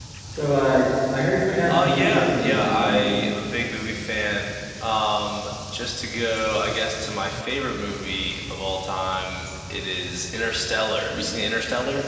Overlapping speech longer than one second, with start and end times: 1.7-2.9

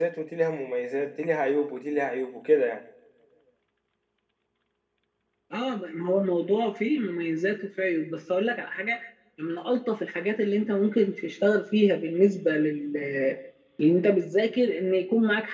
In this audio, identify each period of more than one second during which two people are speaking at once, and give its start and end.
none

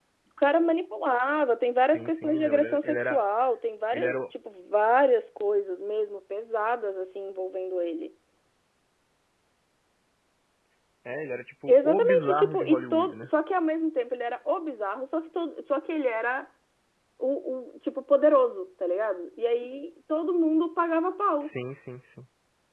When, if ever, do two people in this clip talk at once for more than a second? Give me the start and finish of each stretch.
1.9-3.2, 11.7-13.3

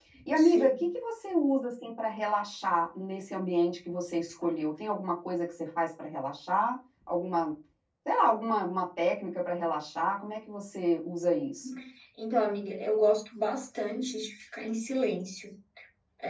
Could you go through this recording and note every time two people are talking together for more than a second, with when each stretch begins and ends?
none

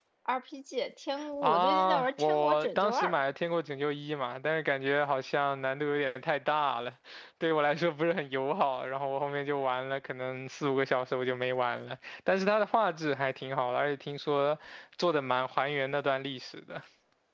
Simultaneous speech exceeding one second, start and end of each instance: 1.4-3.1

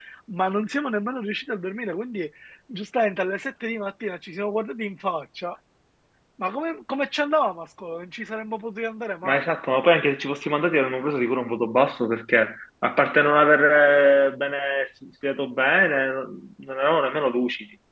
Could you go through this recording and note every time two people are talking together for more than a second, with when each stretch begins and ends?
none

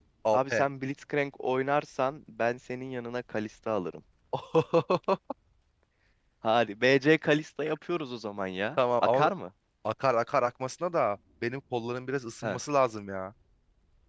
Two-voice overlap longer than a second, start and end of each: none

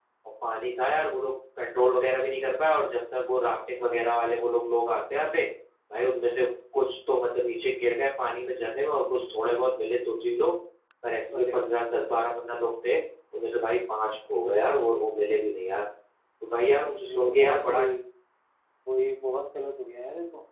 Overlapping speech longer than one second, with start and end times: 16.5-17.8

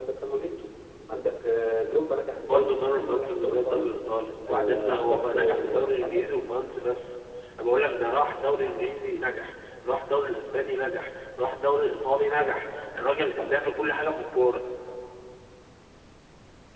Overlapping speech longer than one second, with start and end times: 2.4-4.0, 4.5-6.4

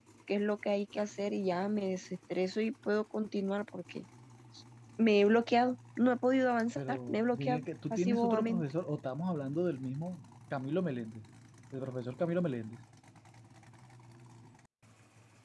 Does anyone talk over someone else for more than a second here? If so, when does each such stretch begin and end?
6.8-8.6

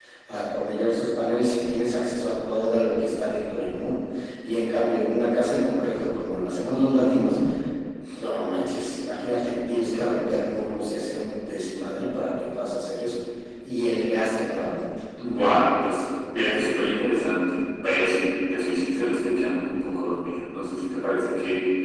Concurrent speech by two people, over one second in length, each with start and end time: none

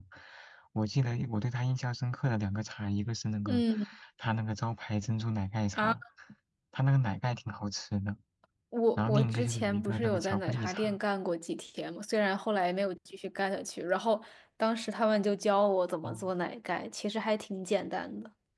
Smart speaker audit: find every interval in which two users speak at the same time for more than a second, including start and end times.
9.0-11.0

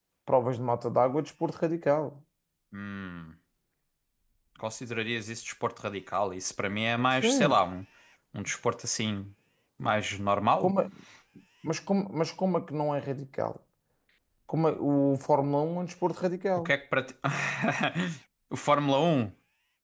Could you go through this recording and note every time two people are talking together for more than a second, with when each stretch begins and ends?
none

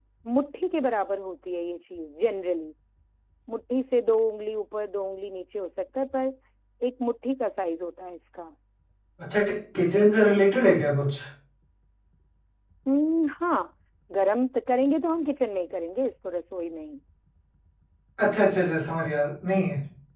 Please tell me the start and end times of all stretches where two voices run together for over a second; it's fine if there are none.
none

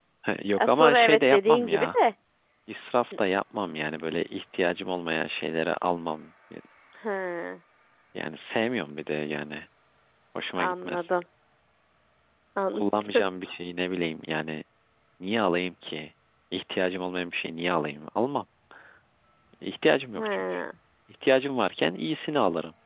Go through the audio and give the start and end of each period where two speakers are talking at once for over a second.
0.6-2.0

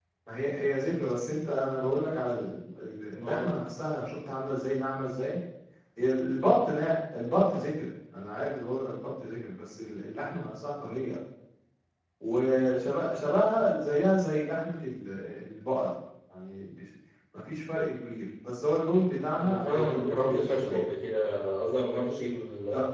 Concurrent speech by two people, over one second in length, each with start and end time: 19.4-20.9

